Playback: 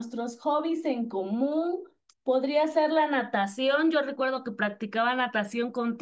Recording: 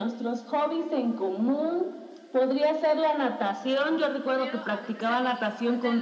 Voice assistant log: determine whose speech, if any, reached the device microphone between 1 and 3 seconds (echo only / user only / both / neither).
echo only